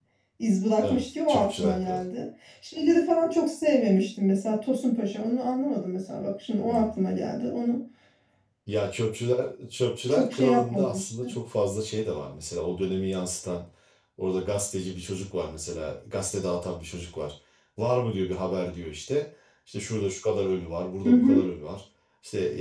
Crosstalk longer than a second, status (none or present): present